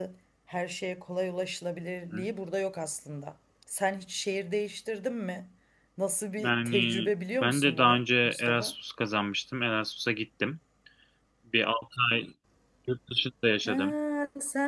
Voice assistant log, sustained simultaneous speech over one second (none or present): present